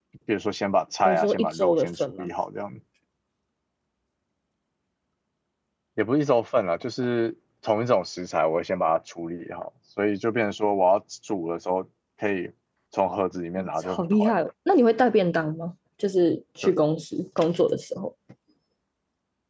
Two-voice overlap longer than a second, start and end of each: 1.0-2.3

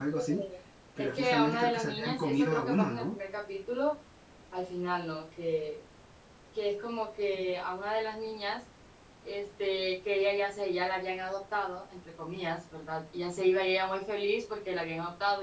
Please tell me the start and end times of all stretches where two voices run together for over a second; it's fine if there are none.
1.0-3.2

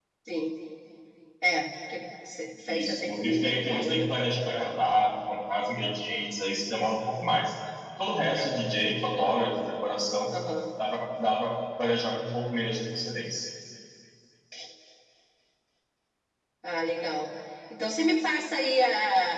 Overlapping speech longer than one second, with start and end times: 2.7-4.1

